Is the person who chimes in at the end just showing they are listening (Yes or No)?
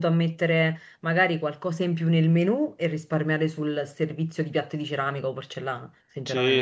No